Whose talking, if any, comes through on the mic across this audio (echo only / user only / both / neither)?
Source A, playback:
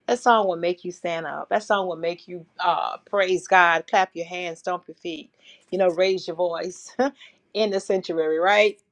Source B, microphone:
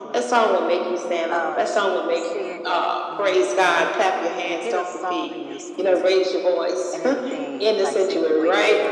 both